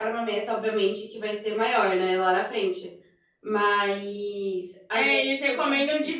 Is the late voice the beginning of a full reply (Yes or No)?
Yes